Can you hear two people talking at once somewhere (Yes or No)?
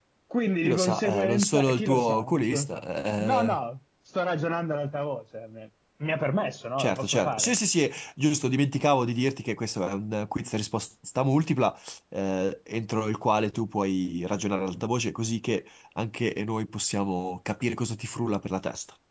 Yes